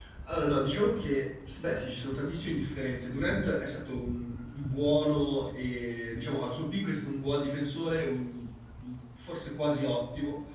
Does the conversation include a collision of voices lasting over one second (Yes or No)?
No